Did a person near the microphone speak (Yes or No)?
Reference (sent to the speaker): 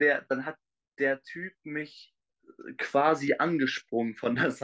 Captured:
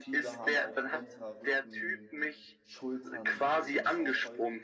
Yes